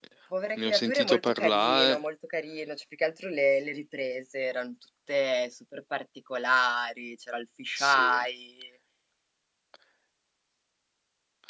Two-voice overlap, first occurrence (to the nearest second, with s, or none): 1 s